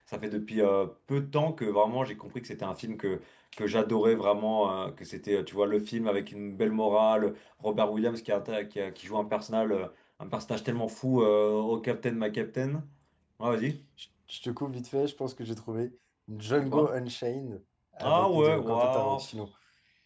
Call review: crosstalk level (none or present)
present